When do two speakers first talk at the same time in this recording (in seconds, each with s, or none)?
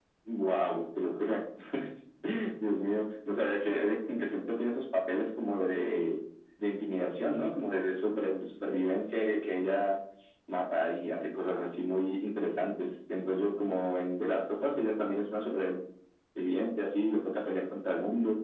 none